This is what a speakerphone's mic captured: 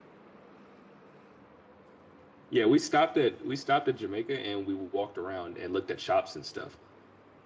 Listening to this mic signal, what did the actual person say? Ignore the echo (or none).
yeah, we stopped at we stopped at Jamaica and we walked around and looked at shops and stuff.